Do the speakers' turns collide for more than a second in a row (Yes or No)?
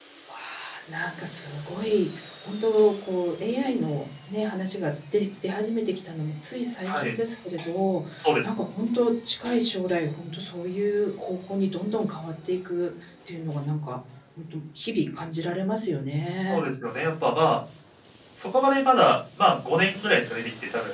No